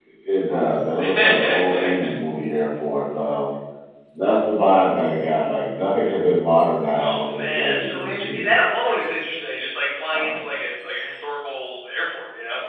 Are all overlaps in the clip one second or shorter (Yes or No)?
No